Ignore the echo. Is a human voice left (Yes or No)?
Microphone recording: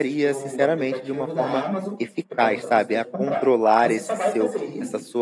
Yes